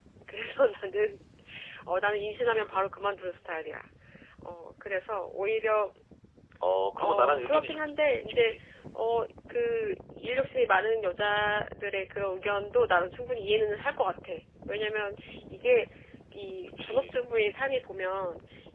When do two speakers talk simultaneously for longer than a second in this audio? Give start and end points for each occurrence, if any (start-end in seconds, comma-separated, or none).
7.0-8.5